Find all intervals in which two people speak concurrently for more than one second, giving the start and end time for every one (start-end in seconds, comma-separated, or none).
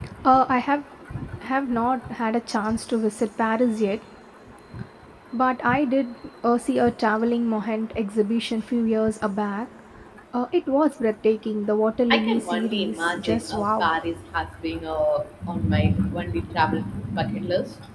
12.1-13.9